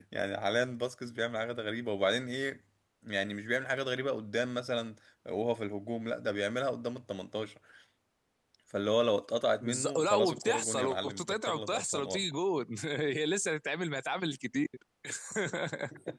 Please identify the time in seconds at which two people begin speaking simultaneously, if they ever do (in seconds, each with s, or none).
9.6 s